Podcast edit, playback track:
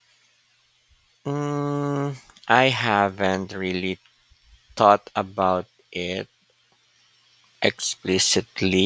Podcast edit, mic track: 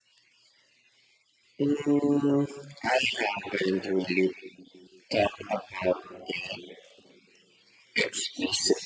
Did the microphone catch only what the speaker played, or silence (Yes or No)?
Yes